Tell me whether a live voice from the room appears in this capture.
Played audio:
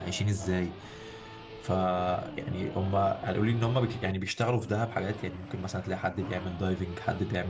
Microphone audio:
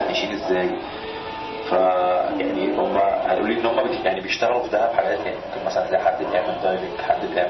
No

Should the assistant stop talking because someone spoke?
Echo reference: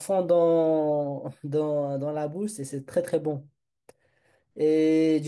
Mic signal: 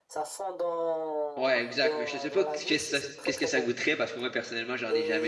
Yes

